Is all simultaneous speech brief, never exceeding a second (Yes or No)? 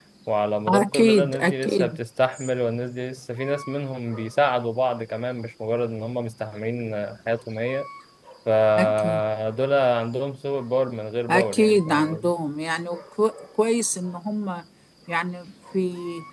No